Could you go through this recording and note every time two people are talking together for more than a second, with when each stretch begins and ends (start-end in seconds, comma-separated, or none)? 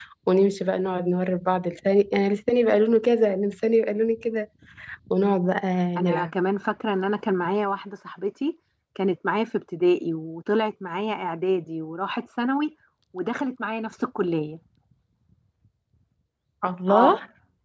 none